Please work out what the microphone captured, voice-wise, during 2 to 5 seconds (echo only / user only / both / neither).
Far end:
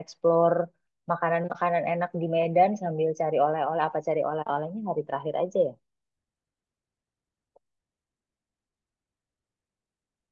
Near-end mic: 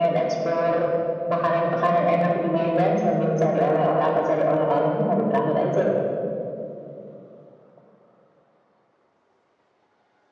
echo only